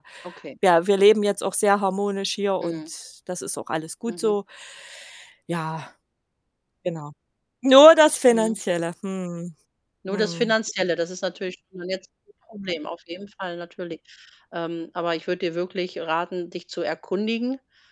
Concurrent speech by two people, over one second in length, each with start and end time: none

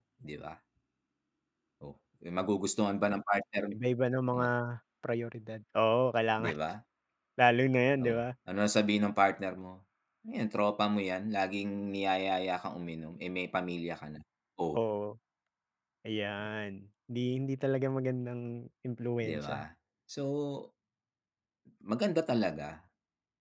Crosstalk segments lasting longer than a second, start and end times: none

